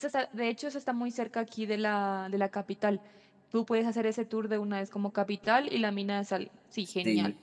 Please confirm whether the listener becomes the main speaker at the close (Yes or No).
Yes